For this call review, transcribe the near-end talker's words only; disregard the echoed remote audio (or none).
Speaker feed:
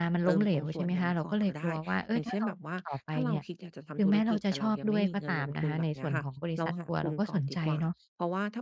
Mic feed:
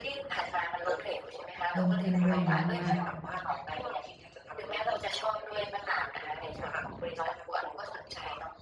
เพิ่มขึ้นด้วยเนาะว่า